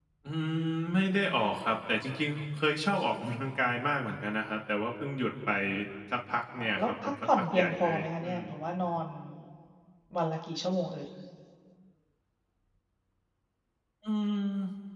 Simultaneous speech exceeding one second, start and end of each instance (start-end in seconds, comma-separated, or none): 6.5-8.4